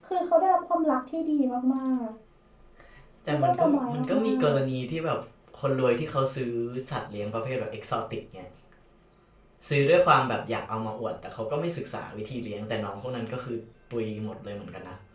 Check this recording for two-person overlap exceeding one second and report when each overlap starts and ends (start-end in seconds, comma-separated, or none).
3.3-4.6